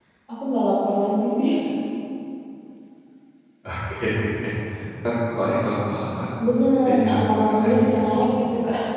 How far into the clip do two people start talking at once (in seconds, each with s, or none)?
6.8 s